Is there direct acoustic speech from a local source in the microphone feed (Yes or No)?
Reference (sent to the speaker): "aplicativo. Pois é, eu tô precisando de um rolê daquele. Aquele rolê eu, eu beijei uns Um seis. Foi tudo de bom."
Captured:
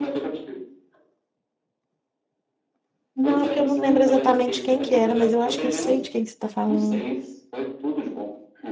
Yes